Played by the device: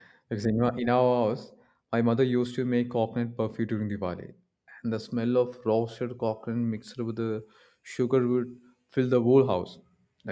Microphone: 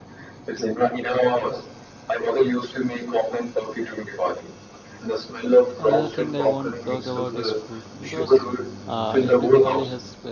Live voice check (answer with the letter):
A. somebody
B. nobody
A